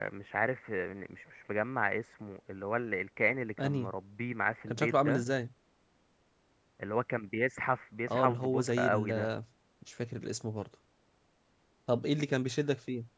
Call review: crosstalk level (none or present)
present